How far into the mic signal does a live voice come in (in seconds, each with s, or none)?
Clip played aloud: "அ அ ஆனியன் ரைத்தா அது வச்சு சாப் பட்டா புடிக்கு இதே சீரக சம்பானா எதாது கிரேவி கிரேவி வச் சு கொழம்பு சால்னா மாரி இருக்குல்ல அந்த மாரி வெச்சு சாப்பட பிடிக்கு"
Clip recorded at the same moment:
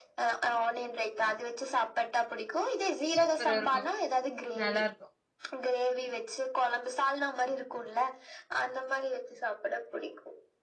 3.1 s